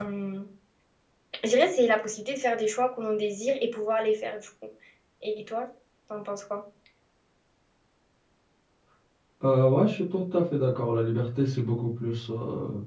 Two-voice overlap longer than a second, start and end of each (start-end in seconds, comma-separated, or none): none